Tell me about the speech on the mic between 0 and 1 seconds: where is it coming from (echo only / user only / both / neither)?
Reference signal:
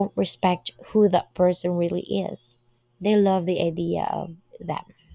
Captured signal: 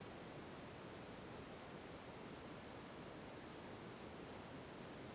neither